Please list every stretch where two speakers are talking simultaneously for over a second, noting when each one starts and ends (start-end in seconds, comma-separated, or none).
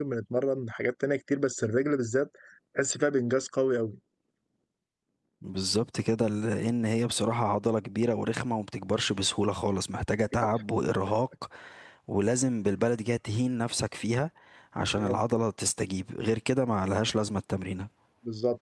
none